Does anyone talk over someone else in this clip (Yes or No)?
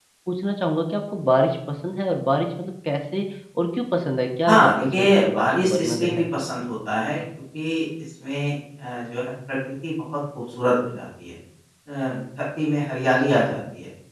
Yes